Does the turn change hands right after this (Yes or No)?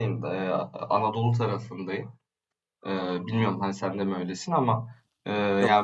No